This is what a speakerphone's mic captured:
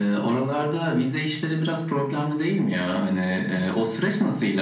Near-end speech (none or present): none